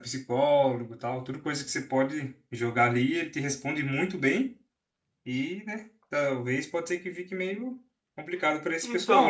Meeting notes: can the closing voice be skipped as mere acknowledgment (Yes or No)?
No